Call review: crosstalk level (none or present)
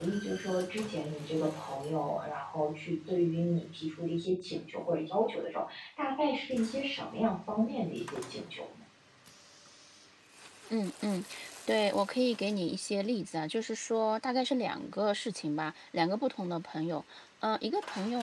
none